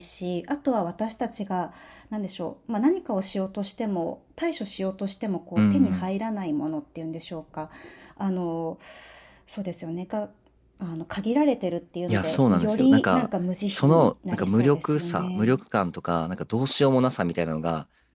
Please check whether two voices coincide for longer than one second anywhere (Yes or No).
Yes